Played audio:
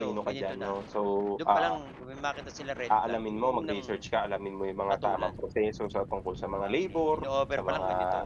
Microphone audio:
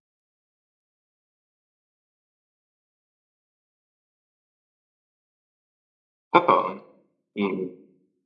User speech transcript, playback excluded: Totoo, mm.

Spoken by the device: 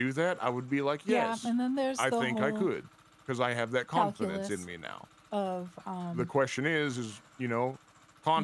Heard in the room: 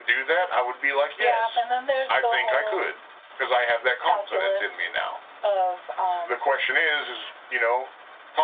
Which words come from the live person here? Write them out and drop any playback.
none

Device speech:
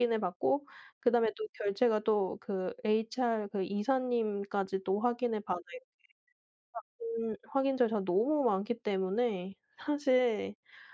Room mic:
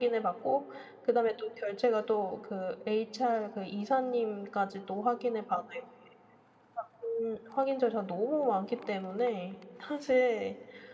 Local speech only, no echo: none

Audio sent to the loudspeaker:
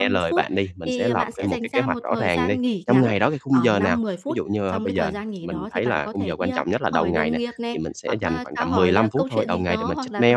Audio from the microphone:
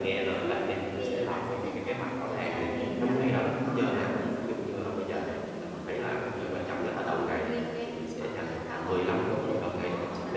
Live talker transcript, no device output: none

